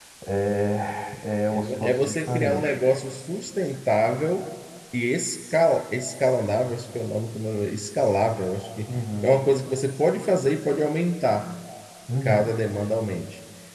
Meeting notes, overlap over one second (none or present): present